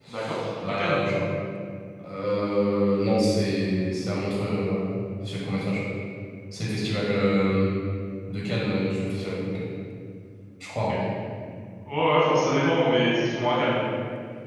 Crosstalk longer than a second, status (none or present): none